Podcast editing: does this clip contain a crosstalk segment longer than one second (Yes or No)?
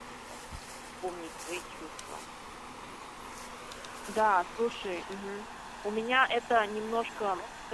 No